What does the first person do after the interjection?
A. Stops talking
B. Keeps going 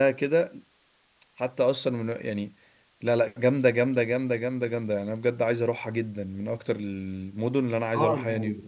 A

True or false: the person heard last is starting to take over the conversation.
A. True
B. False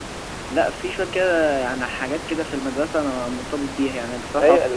A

